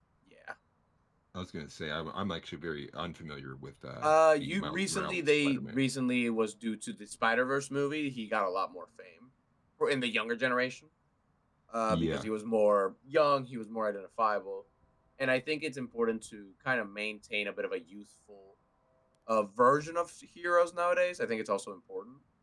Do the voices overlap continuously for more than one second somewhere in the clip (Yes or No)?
Yes